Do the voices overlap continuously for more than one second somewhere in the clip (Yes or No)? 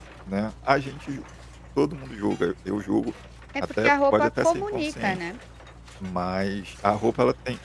Yes